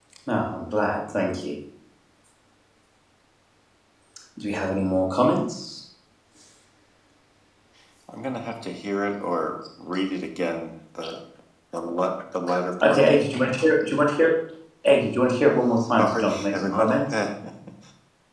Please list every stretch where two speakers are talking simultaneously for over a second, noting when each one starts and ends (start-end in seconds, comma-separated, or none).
16.0-17.2